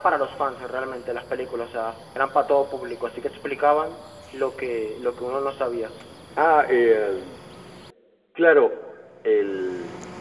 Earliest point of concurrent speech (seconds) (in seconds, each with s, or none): none